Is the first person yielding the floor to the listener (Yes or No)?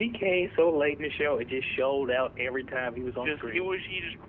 Yes